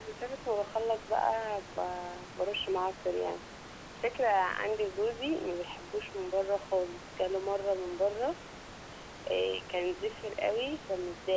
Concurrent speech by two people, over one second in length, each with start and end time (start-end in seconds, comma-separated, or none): none